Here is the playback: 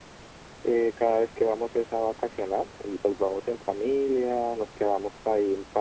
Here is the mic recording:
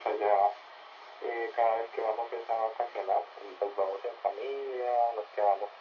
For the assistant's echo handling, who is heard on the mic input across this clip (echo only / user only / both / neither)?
echo only